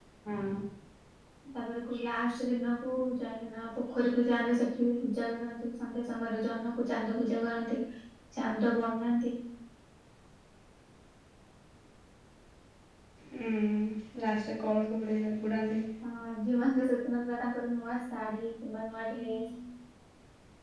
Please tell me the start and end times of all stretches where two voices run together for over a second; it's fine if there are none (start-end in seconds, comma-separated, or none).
none